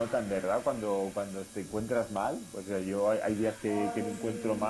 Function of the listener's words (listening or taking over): listening